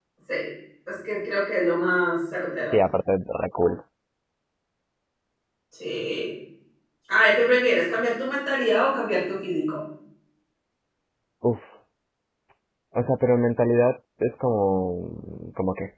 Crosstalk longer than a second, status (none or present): none